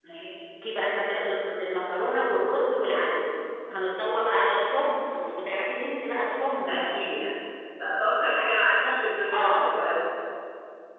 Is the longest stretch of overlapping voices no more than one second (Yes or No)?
Yes